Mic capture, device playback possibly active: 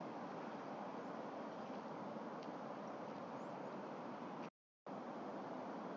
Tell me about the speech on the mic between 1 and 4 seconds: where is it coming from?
neither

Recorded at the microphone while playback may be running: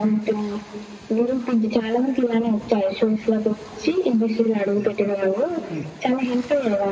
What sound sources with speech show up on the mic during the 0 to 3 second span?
echo only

